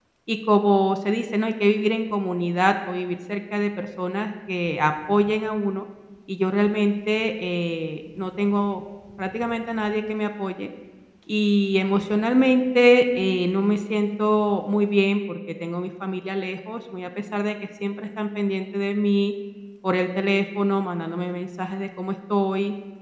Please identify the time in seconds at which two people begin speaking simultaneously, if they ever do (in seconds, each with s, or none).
none